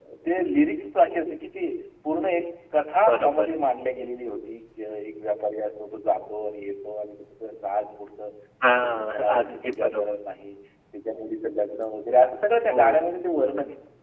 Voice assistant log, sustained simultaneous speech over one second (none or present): present